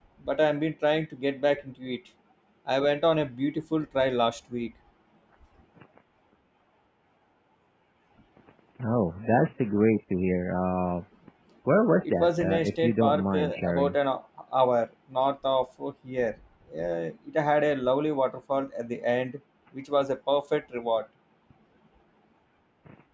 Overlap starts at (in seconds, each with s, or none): 12.1 s